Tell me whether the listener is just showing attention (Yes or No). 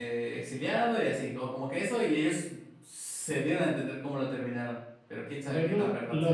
No